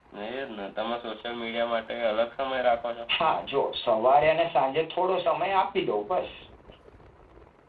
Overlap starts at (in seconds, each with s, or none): none